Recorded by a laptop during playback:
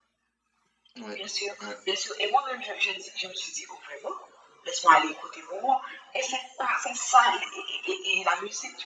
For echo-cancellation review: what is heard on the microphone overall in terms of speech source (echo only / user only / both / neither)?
both